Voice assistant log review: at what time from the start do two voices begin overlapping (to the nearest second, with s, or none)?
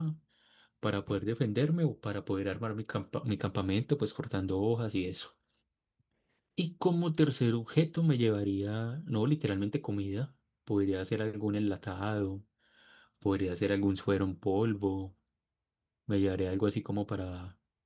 none